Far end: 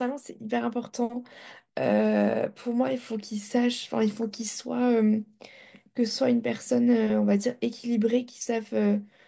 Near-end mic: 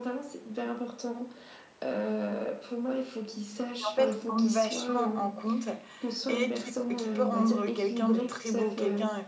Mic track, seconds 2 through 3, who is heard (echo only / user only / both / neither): echo only